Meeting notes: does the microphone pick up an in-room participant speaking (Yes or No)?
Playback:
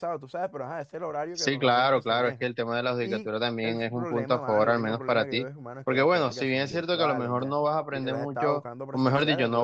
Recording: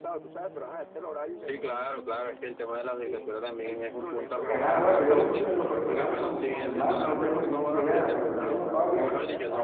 Yes